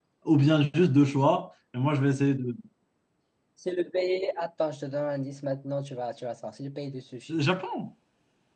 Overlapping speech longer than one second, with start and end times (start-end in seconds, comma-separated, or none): none